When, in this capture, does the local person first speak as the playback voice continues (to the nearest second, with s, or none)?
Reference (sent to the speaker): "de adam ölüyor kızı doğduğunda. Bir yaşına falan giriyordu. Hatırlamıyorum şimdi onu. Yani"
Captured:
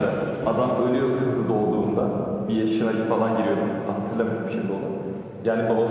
none